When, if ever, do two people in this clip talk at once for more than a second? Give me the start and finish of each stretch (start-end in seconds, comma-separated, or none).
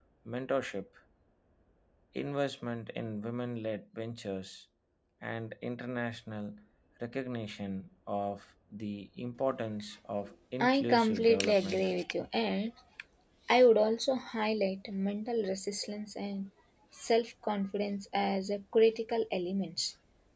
10.6-11.9